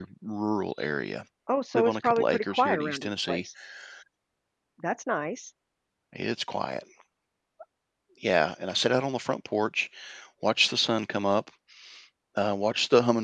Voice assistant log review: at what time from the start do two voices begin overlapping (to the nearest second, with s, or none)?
2 s